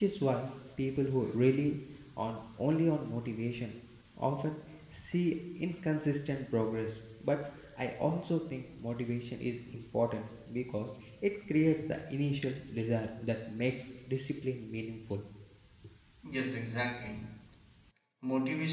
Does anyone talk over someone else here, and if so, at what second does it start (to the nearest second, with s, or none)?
none